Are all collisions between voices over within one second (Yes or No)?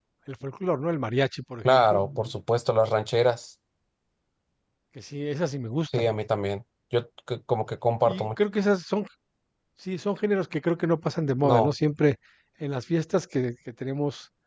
Yes